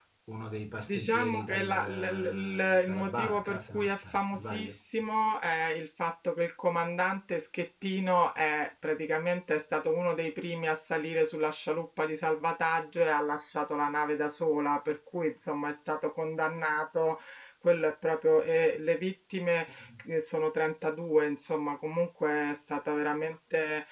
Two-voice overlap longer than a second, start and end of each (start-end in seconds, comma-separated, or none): 0.9-4.7